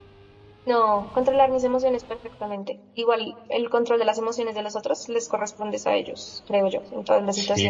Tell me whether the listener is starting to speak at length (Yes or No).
Yes